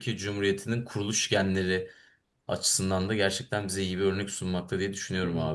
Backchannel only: No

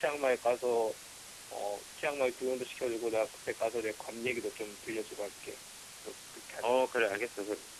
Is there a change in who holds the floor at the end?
Yes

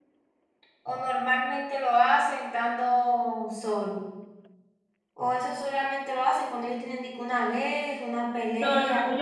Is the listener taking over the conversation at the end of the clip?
Yes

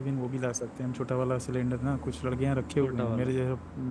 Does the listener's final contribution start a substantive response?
No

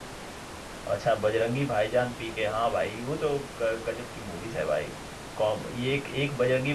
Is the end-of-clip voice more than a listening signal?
No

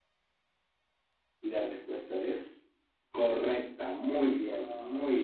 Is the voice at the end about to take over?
Yes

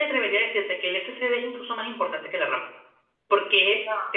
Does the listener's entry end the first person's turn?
No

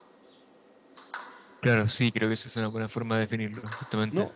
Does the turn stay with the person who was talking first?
No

